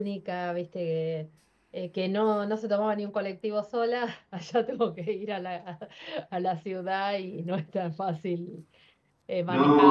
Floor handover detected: No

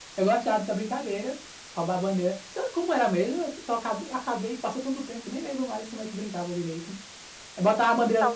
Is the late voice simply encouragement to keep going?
Yes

